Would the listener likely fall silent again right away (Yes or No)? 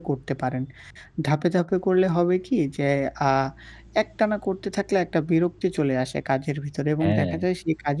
Yes